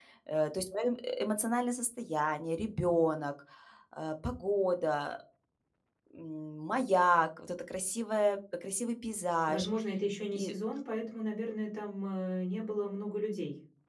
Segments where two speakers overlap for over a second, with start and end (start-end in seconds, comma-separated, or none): none